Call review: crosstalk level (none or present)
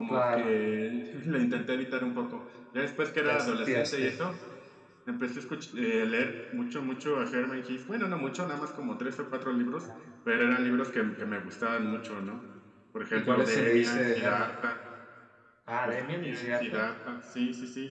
present